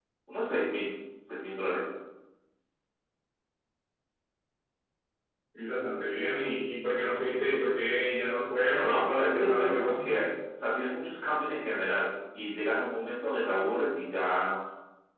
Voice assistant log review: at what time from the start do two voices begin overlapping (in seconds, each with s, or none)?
8.7 s